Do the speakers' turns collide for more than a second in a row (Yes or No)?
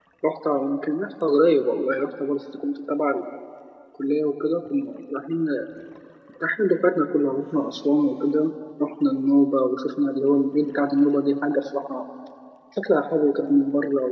No